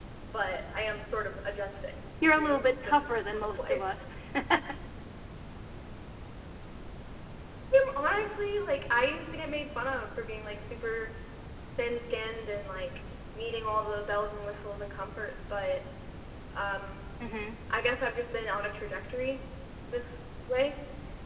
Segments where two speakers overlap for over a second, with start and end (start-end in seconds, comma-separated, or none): 2.4-3.8